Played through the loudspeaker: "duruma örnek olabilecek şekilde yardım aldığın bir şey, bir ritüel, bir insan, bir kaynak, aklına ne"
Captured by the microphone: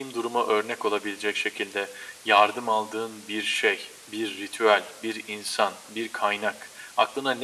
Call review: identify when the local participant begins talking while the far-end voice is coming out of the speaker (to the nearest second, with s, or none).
none